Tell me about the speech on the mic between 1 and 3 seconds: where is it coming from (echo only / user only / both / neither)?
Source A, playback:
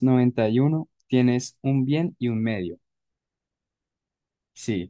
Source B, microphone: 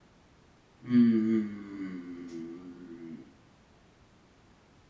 user only